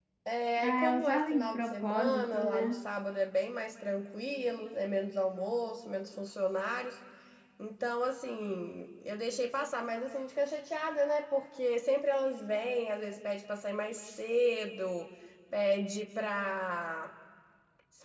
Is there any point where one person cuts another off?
Yes, from 0.6 s

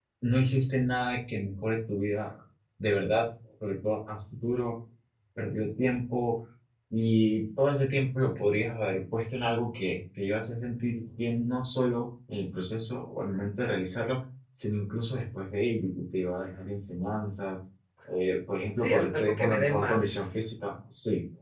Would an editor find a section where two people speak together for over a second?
Yes, from 18.8 s

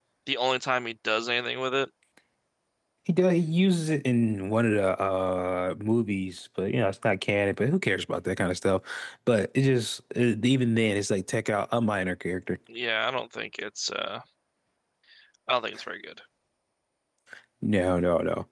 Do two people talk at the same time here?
No

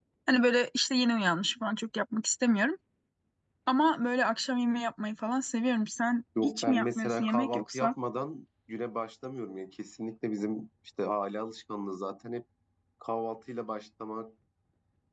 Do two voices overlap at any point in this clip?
Yes, from 6.3 s

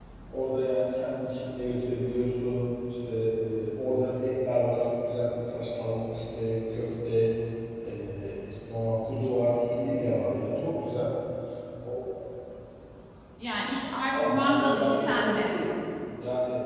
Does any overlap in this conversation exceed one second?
Yes, from 14.1 s

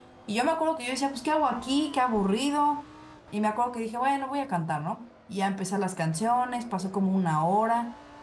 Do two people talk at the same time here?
No

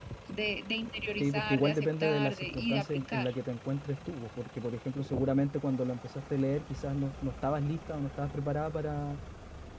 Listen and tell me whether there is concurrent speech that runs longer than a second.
Yes, from 1.2 s

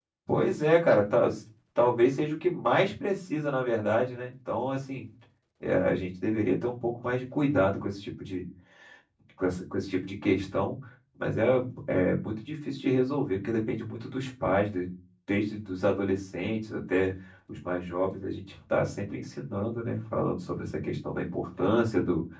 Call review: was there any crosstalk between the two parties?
No

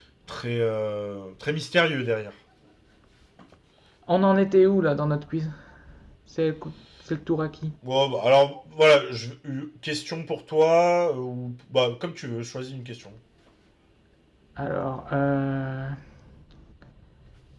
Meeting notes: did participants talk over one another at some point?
No

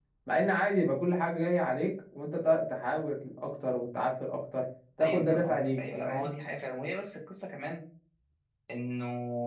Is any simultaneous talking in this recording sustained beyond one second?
Yes, from 5.0 s

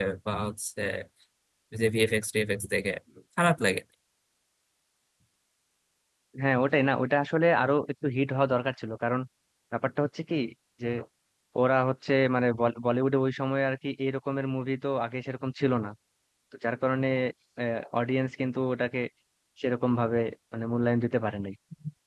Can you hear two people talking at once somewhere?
No

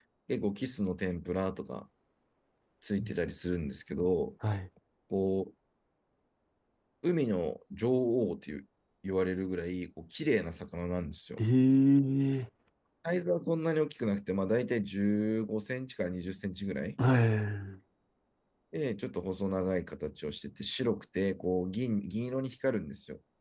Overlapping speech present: No

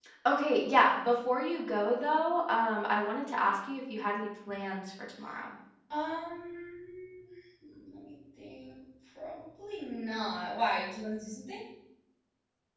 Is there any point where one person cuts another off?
No

